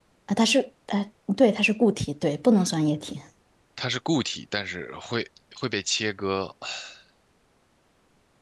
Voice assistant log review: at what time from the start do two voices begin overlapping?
none

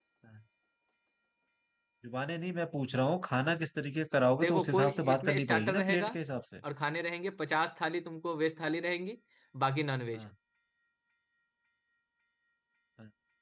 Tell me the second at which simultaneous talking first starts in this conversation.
4 s

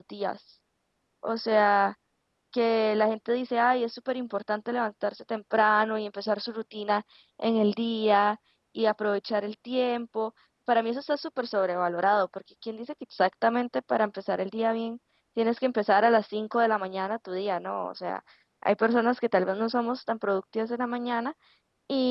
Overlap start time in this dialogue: none

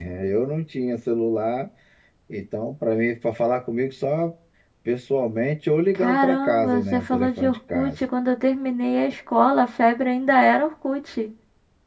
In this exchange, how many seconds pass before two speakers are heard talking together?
6 s

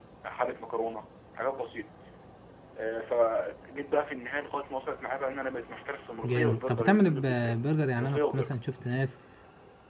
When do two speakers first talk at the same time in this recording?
6 s

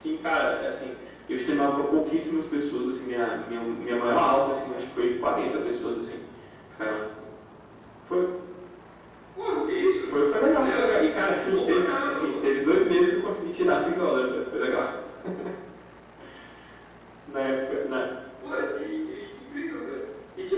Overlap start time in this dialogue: 11 s

